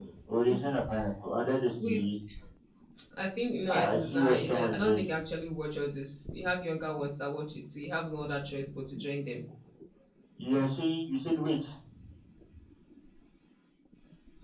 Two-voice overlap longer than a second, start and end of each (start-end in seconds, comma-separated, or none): 3.7-5.1